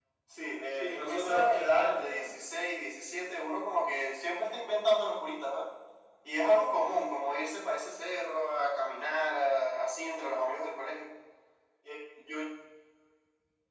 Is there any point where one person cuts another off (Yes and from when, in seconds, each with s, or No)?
Yes, from 0.7 s